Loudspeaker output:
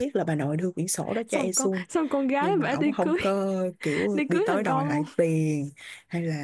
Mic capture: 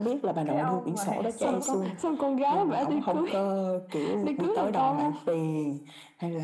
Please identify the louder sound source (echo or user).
echo